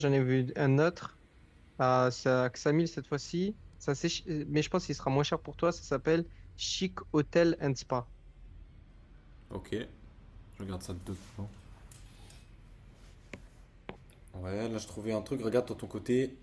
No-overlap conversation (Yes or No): Yes